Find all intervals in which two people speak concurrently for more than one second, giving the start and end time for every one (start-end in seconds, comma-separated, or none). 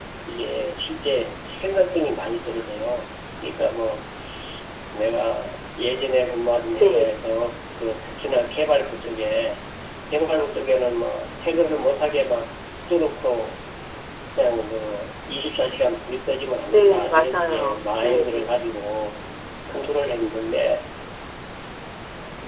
16.7-18.6